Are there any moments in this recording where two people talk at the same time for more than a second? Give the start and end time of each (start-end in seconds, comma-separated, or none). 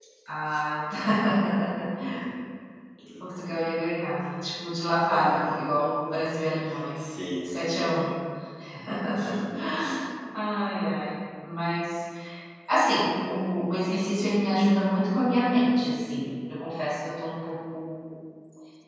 none